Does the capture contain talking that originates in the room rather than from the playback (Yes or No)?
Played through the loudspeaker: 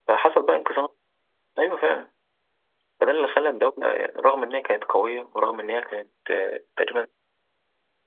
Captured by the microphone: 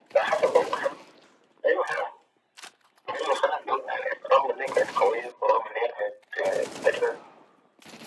No